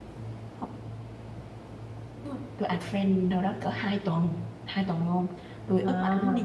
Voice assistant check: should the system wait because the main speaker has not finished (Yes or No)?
Yes